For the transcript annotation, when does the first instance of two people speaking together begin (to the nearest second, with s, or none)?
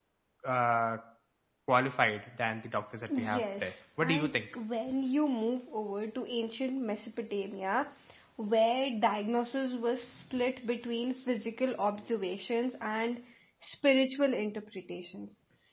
3 s